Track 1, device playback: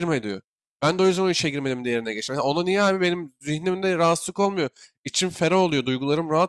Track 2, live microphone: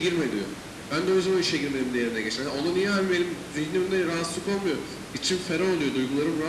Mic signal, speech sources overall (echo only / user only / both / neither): echo only